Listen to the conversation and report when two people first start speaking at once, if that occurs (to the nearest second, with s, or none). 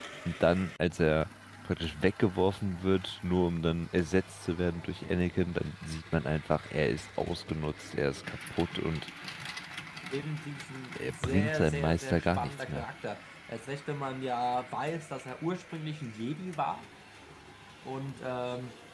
11 s